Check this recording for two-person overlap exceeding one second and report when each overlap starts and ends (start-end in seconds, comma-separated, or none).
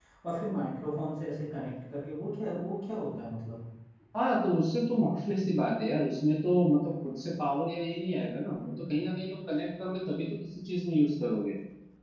none